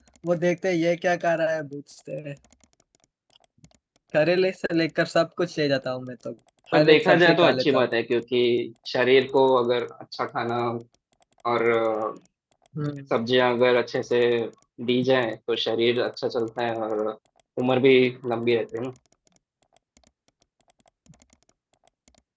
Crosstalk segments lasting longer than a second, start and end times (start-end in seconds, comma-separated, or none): 6.7-7.9